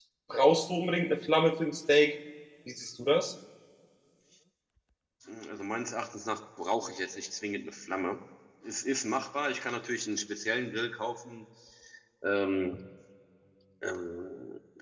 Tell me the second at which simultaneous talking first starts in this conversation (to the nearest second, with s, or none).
none